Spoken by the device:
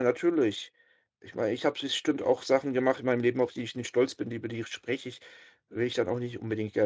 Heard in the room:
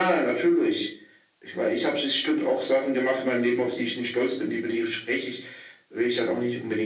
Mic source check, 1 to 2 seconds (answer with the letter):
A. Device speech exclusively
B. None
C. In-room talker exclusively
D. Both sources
A